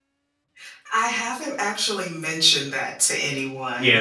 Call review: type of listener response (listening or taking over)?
taking over